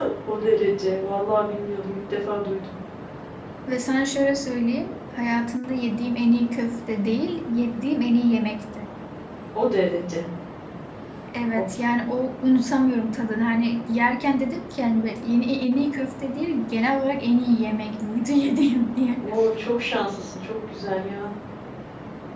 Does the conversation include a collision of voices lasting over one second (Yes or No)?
No